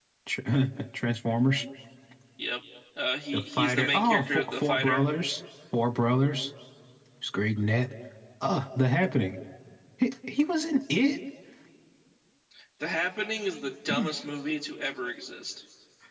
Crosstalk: present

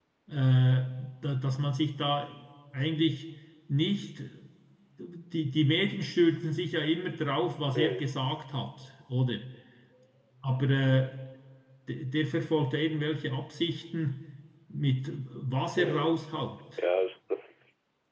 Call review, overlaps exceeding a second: none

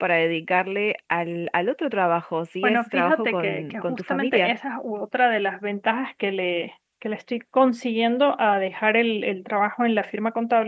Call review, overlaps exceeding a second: present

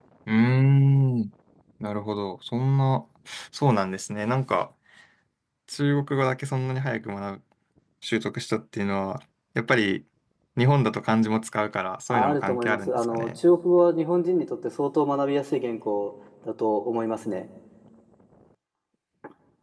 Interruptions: present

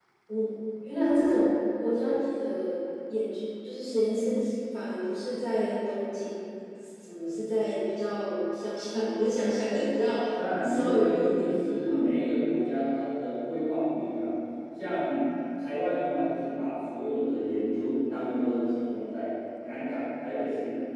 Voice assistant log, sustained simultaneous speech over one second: present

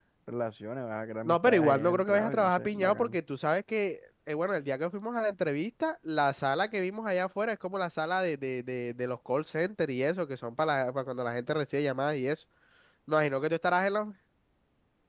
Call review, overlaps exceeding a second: present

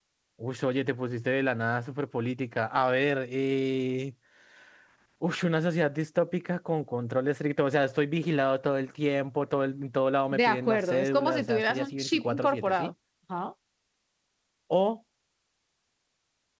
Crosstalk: present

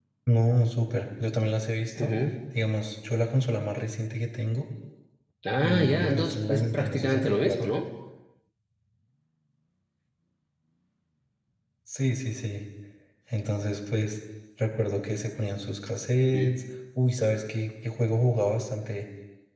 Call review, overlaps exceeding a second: present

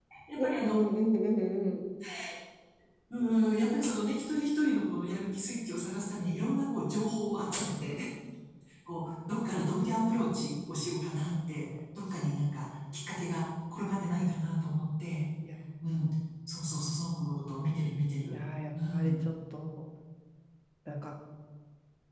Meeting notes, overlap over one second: none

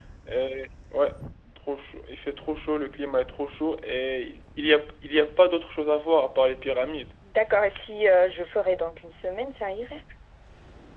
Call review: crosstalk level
none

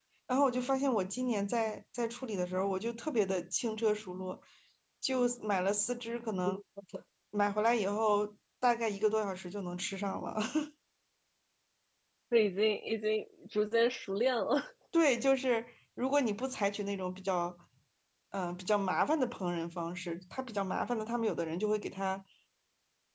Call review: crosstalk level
none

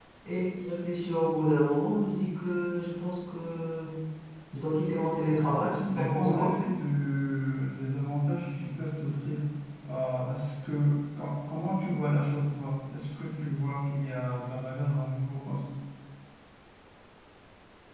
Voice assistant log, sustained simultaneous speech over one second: present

